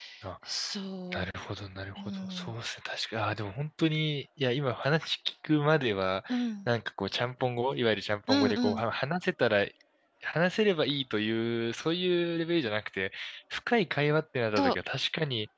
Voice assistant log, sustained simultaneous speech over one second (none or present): none